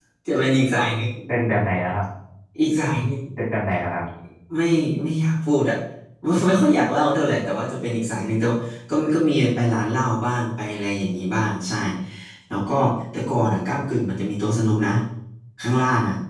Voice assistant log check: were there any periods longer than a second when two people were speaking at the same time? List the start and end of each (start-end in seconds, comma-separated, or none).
none